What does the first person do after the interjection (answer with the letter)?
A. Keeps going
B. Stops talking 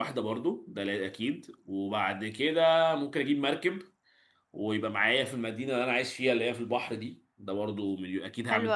B